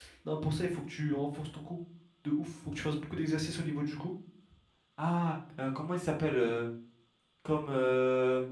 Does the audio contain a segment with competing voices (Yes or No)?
No